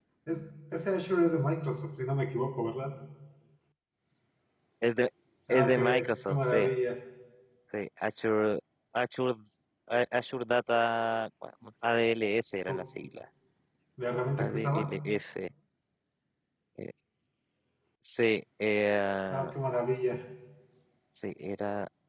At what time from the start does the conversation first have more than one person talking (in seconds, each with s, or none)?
5.5 s